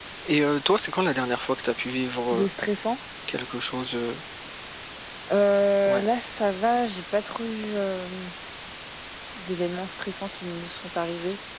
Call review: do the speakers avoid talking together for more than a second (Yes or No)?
Yes